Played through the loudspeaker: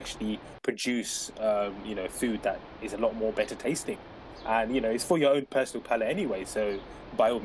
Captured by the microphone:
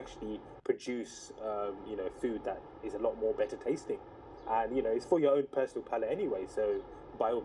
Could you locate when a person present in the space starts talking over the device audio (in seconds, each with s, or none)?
none